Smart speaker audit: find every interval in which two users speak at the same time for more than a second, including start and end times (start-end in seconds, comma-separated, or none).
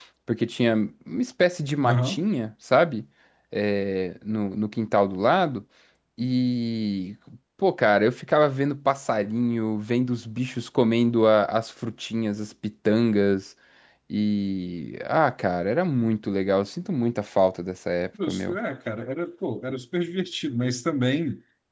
none